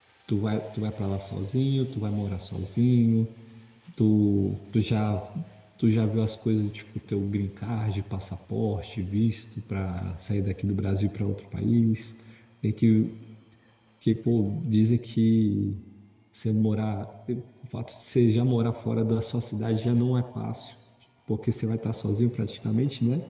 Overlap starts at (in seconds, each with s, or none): none